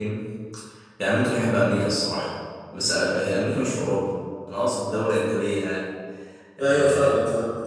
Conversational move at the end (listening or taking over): taking over